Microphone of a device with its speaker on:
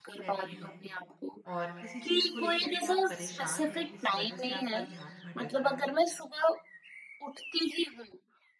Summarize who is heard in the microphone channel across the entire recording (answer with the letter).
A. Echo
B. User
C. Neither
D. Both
D